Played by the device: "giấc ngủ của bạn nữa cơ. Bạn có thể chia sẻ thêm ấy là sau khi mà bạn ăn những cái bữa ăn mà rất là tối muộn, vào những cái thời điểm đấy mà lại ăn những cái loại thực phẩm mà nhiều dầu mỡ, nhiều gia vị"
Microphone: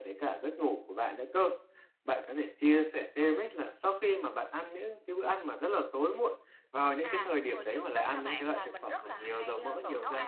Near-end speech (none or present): present